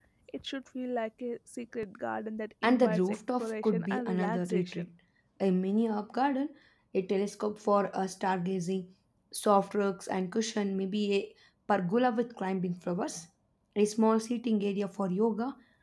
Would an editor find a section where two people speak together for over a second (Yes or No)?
Yes